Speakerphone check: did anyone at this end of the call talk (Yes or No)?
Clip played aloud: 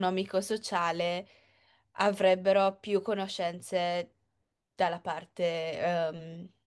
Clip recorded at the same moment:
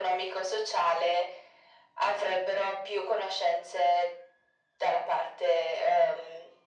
No